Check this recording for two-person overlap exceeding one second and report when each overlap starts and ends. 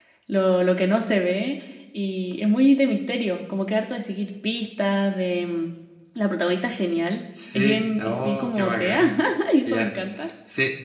7.6-9.0

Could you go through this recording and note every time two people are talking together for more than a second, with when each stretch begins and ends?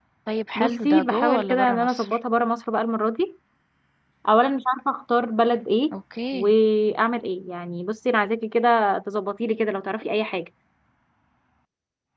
0.6-2.2

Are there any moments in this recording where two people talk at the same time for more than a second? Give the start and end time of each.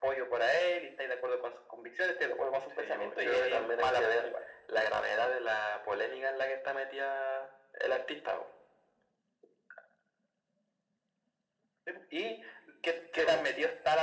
2.8-4.3

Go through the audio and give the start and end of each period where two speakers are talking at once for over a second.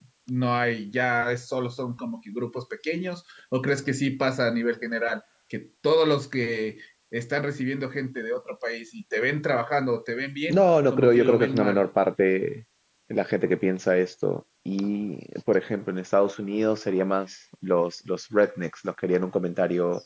10.5-11.8

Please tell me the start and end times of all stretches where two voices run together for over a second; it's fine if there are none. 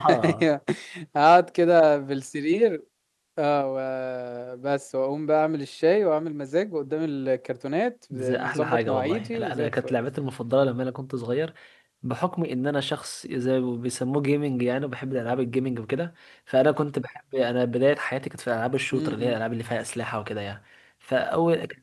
8.1-9.9

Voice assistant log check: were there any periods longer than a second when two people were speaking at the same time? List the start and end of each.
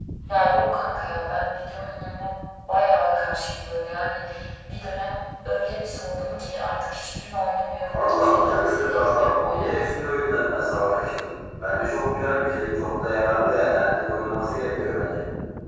7.8-10.1

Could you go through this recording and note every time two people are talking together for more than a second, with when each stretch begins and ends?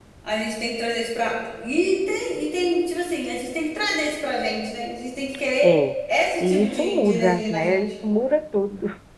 6.4-7.8

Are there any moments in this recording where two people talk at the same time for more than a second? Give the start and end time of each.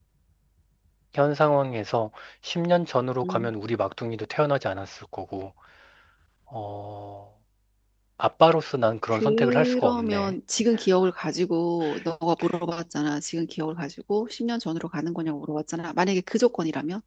9.1-10.3

